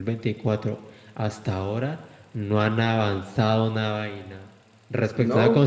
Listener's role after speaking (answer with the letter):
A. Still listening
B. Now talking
A